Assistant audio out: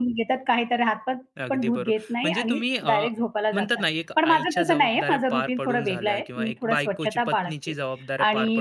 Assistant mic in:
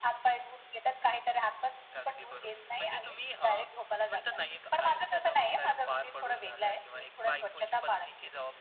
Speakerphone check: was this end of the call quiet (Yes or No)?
Yes